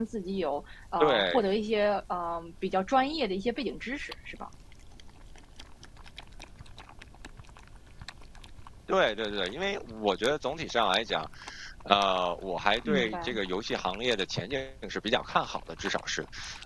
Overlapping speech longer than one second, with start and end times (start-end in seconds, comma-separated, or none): none